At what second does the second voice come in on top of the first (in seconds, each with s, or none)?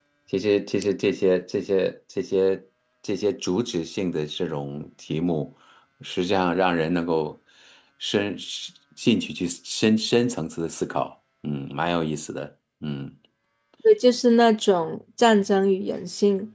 none